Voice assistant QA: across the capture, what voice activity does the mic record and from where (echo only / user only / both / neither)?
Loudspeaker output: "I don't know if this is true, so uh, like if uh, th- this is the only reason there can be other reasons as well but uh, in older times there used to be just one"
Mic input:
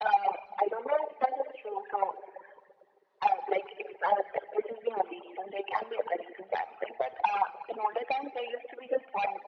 echo only